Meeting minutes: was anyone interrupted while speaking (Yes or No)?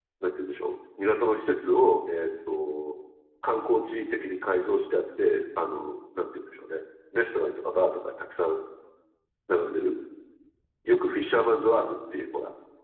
No